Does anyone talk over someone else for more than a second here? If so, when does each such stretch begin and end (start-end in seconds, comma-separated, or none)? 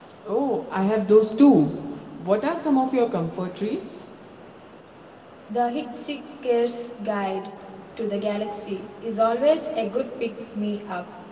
none